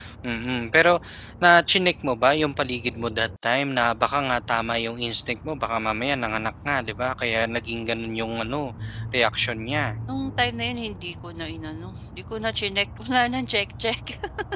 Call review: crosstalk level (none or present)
none